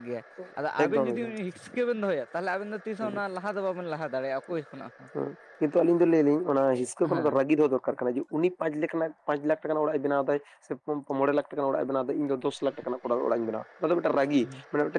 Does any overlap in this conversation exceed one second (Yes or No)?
No